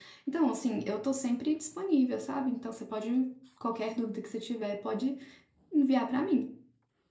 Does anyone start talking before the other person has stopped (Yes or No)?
No